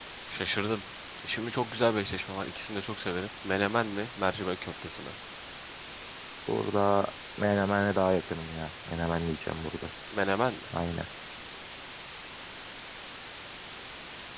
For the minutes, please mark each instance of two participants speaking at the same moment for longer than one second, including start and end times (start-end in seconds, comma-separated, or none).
none